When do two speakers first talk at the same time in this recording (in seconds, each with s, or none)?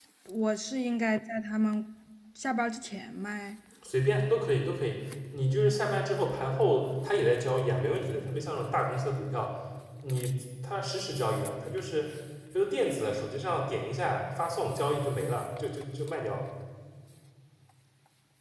none